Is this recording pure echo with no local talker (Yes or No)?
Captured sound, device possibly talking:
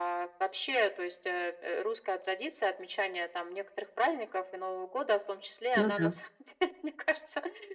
No